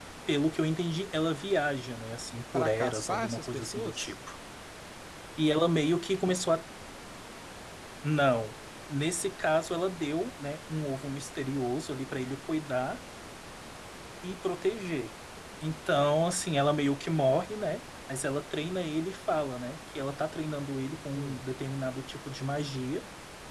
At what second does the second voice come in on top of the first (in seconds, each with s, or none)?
2.5 s